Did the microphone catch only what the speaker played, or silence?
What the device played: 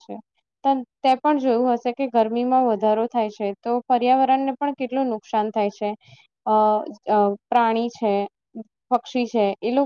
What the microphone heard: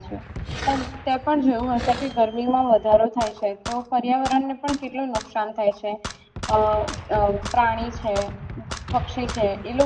Yes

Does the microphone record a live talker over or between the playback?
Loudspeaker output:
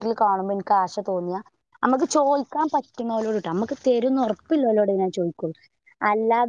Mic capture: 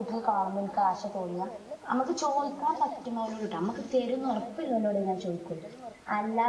Yes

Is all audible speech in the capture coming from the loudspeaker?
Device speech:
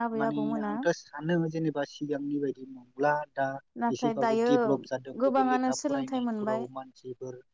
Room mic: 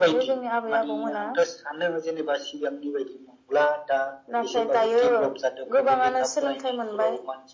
Yes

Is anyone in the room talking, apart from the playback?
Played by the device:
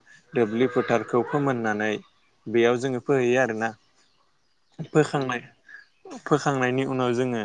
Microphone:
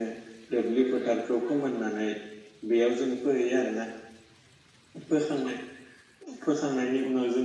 No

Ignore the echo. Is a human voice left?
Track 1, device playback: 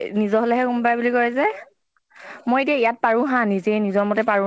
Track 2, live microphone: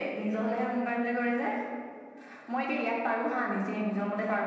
No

